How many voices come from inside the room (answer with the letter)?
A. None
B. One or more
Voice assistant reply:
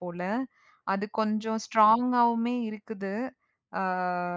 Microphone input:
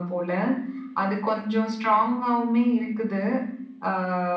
A